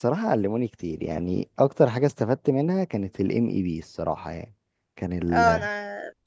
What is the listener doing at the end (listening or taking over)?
taking over